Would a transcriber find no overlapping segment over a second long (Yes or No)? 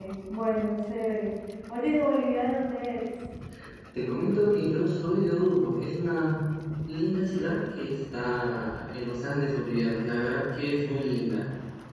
Yes